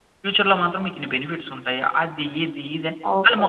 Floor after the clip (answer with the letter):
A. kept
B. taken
B